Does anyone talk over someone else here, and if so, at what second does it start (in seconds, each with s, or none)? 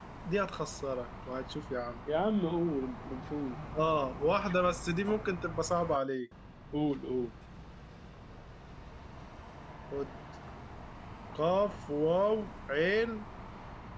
none